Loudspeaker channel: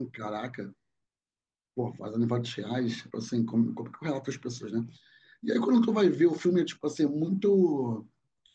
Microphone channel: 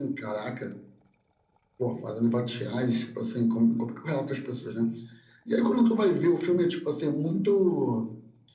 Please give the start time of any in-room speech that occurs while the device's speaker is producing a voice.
none

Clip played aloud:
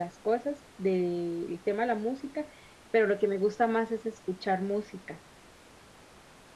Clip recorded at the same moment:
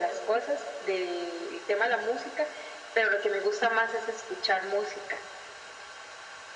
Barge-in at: none

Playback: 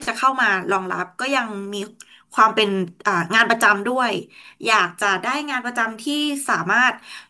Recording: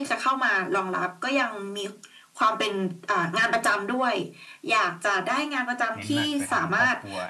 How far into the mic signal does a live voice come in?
5.9 s

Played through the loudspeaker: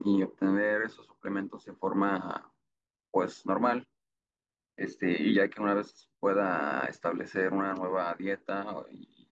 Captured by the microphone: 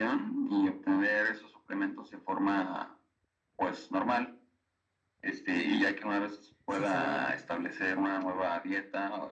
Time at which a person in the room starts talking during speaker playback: 6.7 s

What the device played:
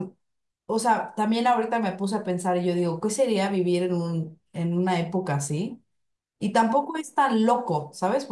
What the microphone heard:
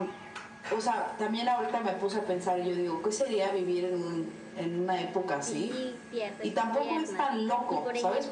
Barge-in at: 5.4 s

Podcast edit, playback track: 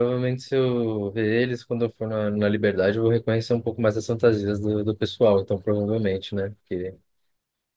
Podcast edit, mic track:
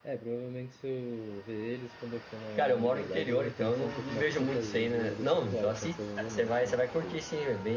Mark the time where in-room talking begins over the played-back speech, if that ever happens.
2.5 s

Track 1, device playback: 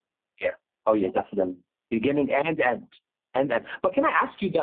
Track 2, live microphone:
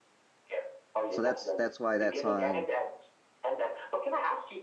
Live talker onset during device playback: 1.1 s

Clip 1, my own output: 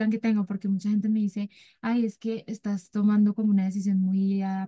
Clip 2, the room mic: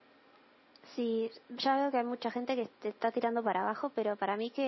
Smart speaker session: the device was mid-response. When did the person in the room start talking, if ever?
0.8 s

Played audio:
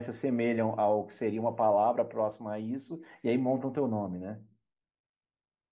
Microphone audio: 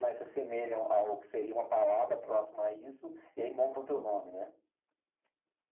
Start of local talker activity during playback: none

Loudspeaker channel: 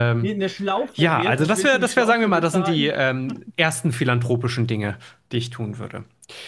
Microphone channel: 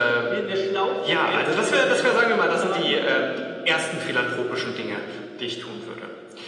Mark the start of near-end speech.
none

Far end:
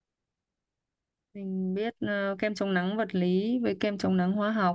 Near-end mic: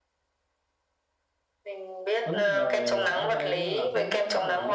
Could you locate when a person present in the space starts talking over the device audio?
2.2 s

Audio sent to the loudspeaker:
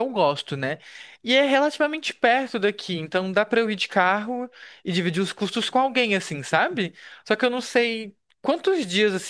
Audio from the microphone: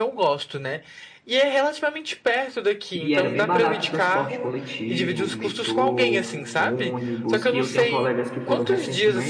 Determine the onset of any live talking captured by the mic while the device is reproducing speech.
3.0 s

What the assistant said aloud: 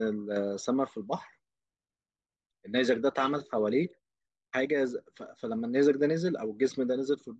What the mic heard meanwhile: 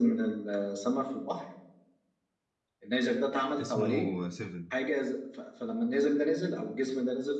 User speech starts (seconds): 3.5 s

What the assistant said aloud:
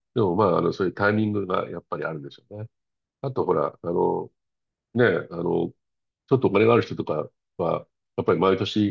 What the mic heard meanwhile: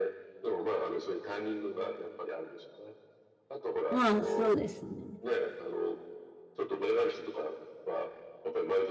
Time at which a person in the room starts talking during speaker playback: 3.9 s

